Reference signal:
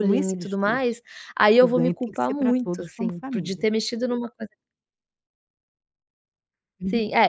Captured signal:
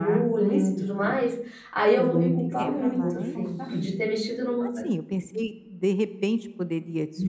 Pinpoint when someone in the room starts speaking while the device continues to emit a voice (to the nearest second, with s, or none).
3 s